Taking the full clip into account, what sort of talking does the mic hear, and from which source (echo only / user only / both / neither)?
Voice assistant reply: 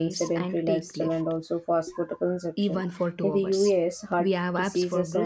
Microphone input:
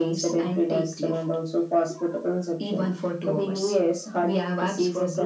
echo only